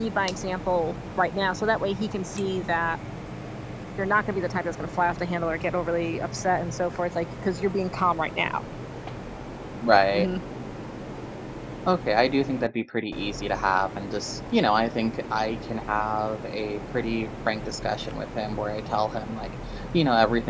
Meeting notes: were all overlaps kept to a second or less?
Yes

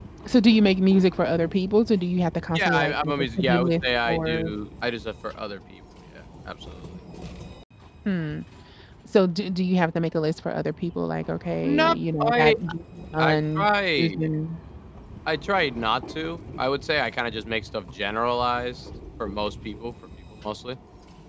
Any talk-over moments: Yes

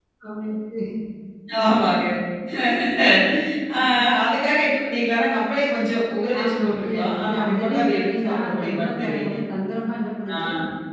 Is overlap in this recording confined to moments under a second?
No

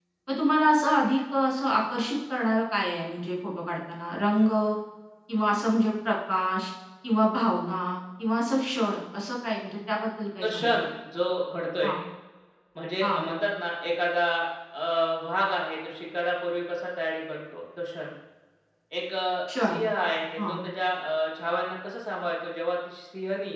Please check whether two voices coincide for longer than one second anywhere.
No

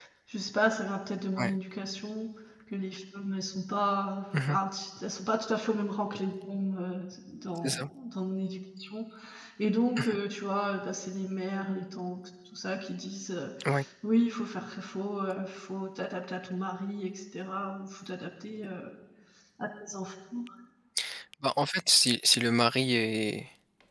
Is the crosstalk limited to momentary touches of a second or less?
Yes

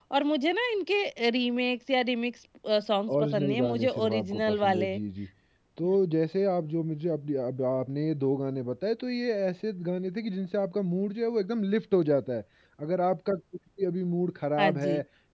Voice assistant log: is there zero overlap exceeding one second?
No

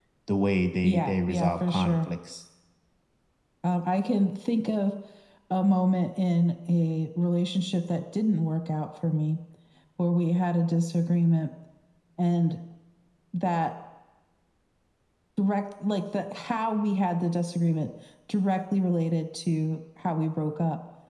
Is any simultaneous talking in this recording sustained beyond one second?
Yes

